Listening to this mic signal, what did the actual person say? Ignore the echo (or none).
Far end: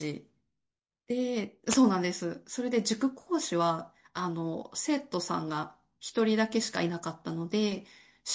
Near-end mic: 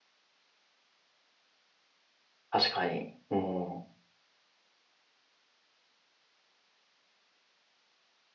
確かに。うん。